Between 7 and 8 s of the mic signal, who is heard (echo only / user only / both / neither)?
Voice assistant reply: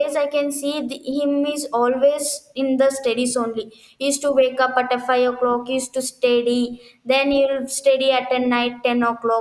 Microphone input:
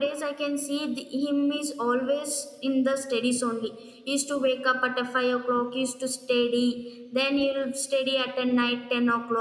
echo only